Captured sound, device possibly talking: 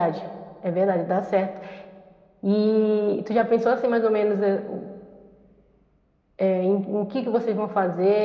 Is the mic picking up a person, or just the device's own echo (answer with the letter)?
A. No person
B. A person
A